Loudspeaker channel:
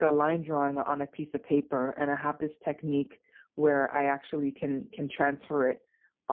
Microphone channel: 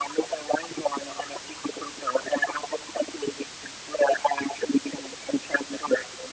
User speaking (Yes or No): No